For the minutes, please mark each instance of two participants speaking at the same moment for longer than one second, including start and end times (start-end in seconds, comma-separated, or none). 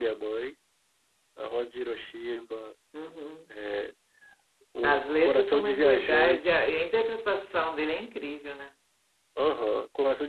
4.8-6.7